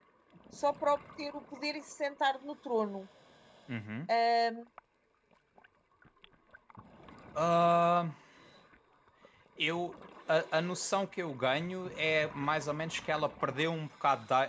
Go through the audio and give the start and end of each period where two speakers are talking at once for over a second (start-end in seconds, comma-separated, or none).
none